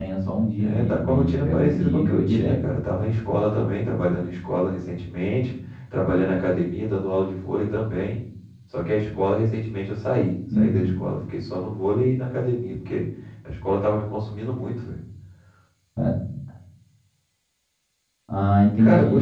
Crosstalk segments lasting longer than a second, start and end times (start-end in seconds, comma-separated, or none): 0.6-2.5